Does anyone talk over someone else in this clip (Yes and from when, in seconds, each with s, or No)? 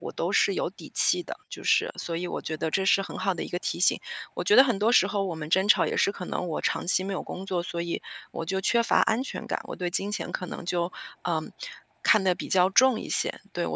No